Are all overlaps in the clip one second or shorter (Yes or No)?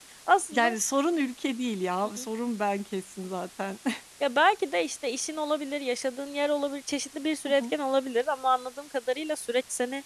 Yes